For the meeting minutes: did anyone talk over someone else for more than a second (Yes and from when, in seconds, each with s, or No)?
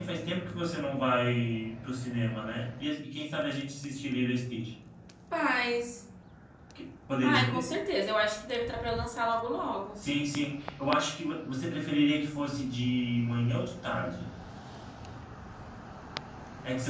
No